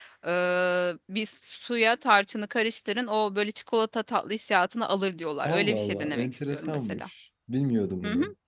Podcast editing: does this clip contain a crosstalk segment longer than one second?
Yes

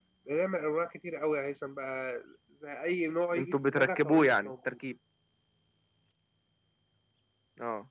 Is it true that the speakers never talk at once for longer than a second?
No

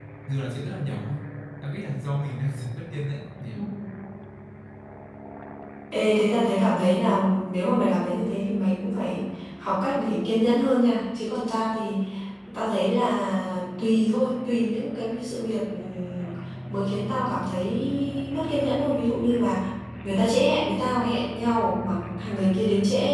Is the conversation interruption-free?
Yes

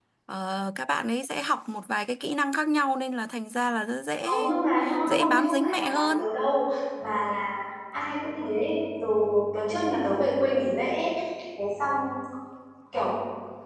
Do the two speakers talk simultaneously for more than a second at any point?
Yes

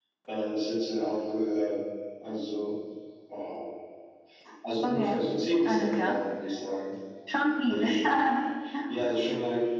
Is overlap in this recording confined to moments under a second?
Yes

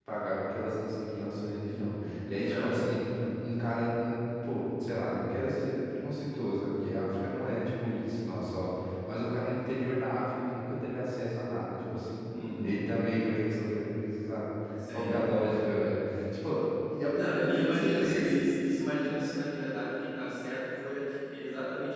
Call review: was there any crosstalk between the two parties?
Yes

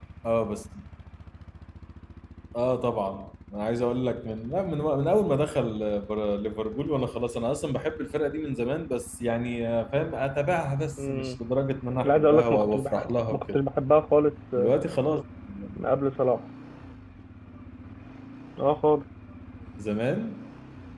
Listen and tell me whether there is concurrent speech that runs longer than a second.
Yes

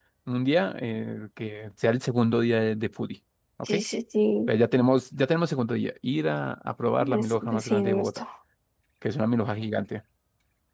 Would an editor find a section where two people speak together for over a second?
Yes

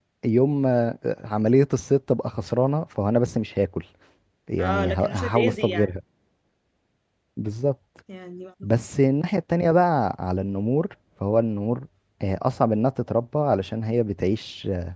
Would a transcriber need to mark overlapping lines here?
Yes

